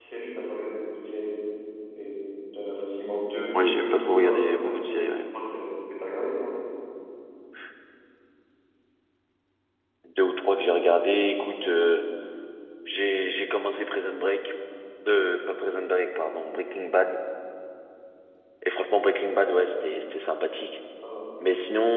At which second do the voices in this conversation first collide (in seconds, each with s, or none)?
3.5 s